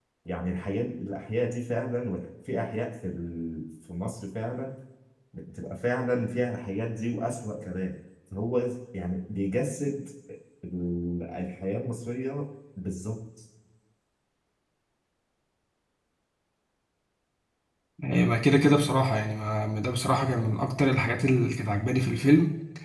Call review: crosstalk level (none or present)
none